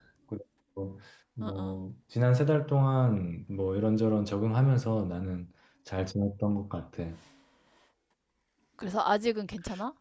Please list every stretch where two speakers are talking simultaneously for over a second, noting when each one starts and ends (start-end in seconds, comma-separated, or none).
none